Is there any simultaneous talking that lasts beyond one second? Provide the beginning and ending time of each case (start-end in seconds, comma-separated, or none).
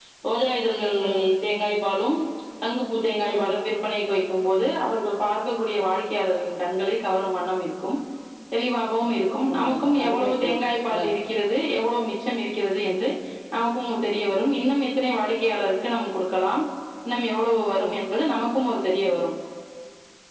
9.5-11.0